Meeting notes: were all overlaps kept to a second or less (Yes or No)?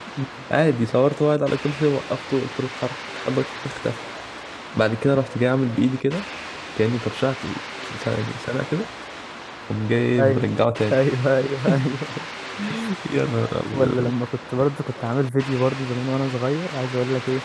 Yes